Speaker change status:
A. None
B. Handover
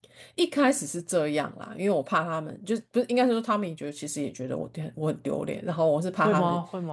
B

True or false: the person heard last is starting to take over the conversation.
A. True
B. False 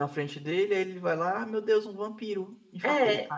A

